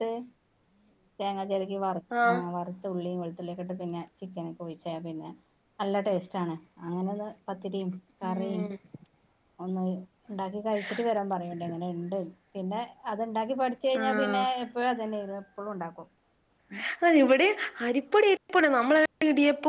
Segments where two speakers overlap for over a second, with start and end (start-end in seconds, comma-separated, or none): none